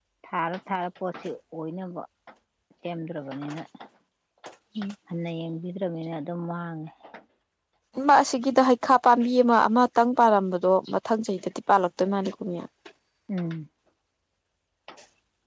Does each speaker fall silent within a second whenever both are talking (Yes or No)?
Yes